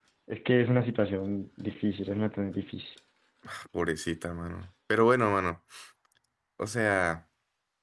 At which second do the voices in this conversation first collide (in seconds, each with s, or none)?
none